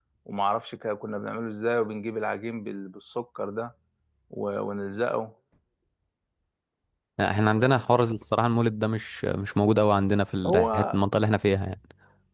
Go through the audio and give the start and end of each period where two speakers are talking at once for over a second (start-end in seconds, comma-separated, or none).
none